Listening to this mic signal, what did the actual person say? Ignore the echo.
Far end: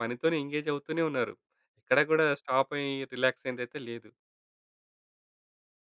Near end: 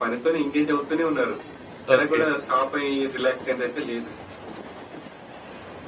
ఓకే.

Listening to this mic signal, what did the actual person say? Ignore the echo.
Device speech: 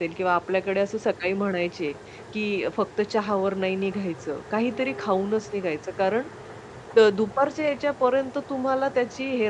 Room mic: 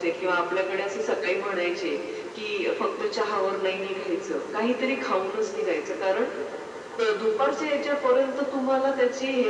none

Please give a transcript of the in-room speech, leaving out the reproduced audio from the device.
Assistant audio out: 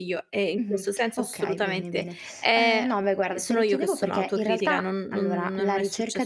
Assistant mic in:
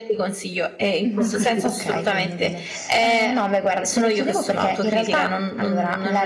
Ho capi

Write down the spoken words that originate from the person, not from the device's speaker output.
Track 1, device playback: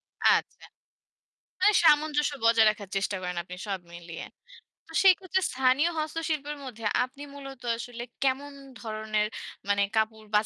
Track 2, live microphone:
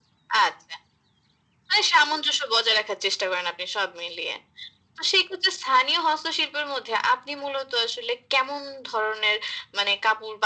none

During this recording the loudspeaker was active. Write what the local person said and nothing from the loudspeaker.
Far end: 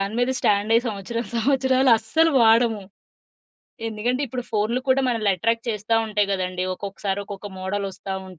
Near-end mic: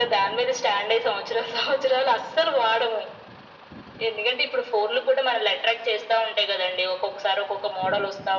none

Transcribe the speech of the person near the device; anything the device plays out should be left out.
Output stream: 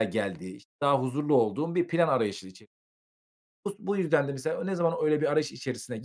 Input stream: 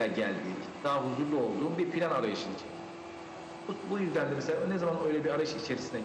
none

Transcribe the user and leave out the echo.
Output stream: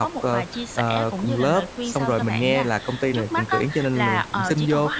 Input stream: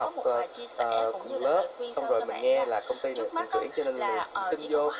none

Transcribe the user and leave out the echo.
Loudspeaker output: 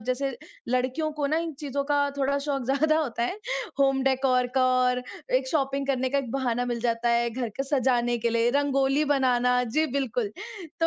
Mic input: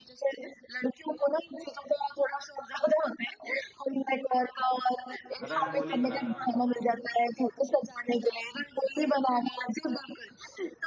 रंगोली बनाना।

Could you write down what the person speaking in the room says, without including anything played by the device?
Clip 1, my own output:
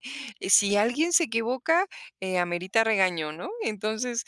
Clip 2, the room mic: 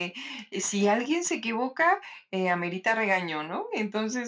none

